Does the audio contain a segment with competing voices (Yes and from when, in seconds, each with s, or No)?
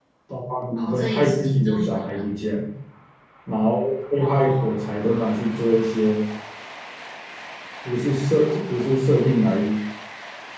Yes, from 0.8 s